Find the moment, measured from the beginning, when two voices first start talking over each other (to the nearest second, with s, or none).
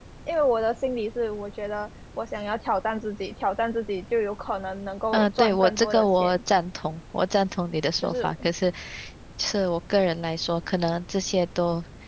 5 s